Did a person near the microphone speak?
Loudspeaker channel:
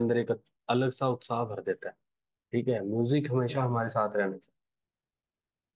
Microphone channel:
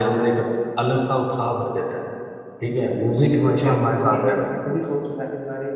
Yes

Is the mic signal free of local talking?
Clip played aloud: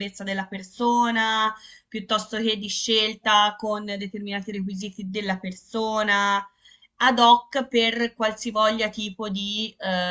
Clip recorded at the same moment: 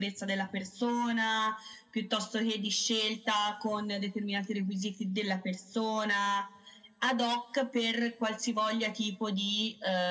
Yes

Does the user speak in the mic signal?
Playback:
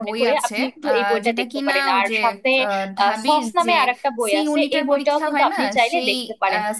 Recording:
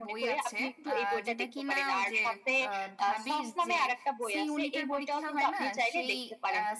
No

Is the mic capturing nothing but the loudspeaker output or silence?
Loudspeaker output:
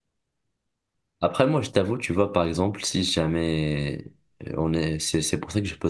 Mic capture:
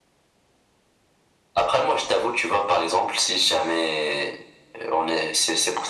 Yes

